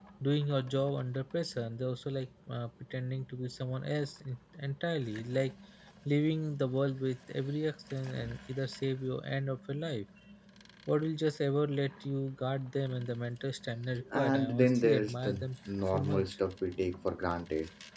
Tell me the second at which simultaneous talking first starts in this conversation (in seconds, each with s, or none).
14.0 s